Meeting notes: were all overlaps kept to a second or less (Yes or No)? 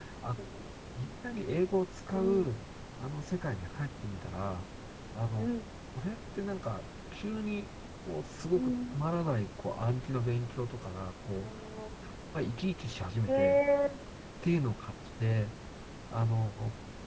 Yes